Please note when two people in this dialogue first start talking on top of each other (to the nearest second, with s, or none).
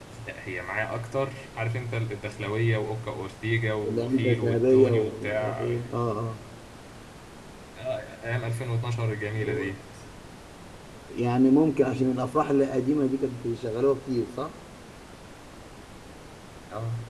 4 s